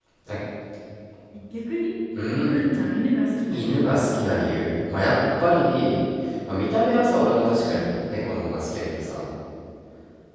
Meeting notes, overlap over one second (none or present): none